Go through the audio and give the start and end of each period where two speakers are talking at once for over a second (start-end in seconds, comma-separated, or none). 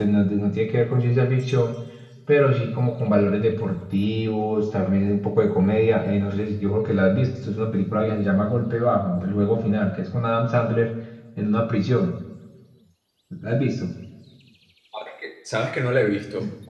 none